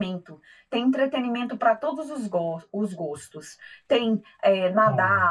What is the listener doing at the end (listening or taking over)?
listening